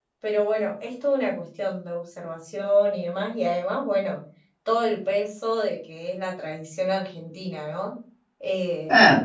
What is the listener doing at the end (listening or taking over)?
listening